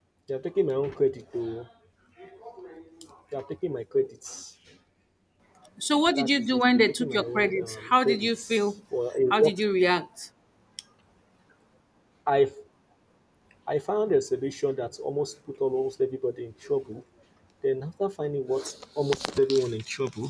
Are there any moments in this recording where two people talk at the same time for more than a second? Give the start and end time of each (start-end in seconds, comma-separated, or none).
6.2-8.6